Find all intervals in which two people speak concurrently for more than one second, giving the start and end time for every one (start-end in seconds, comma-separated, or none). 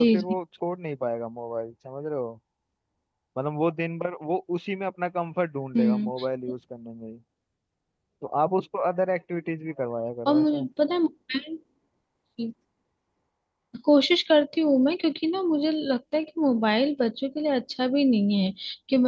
none